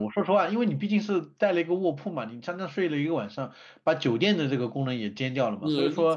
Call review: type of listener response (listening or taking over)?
taking over